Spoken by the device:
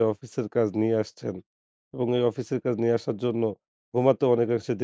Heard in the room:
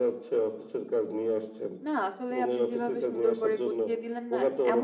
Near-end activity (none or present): present